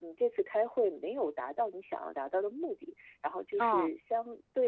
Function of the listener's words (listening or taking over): listening